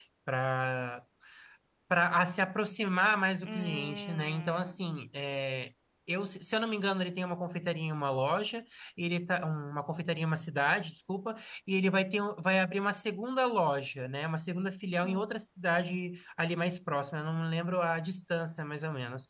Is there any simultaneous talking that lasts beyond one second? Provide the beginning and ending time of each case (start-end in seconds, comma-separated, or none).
3.4-4.8